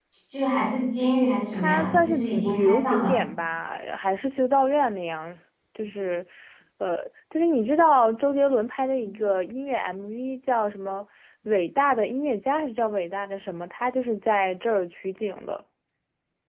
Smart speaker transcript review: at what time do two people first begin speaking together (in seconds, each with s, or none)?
1.5 s